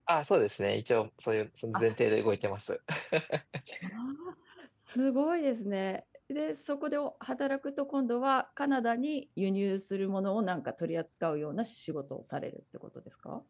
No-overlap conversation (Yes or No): Yes